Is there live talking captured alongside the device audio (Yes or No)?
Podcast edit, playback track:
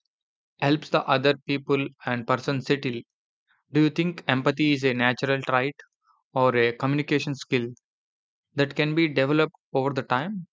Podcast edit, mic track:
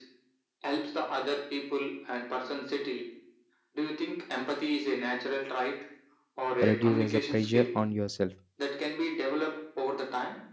Yes